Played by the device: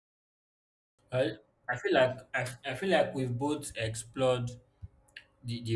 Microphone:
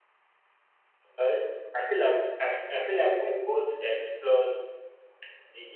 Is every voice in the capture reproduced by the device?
Yes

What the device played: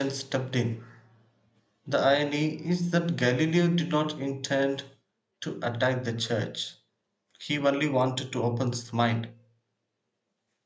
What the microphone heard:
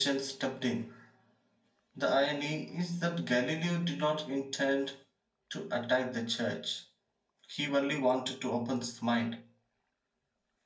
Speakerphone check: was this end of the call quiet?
Yes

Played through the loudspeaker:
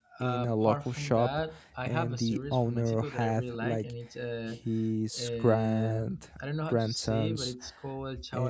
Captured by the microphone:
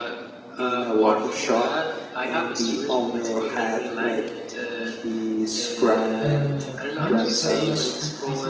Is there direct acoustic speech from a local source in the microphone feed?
Yes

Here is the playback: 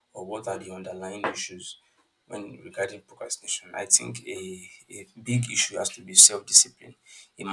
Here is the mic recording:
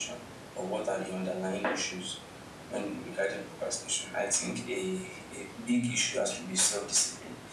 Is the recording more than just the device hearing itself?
No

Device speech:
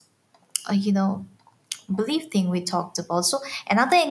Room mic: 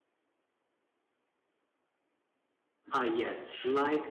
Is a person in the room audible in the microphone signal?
Yes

